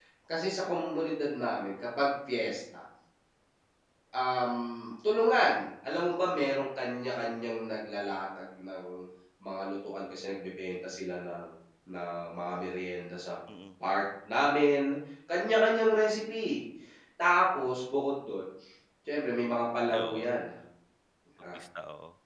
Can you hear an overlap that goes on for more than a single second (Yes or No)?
No